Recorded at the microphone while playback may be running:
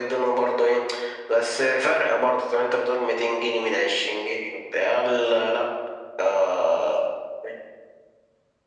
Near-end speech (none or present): none